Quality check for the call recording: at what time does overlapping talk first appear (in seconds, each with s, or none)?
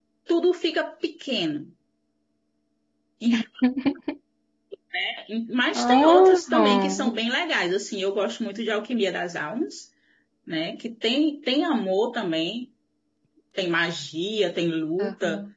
5.7 s